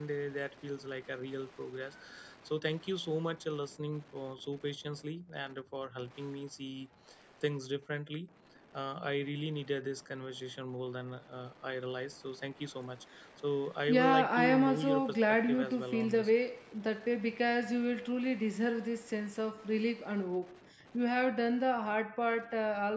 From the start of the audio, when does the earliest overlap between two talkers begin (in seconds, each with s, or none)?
13.9 s